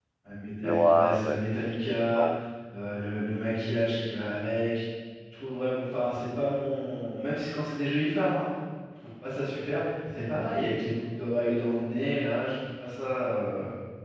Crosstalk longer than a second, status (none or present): present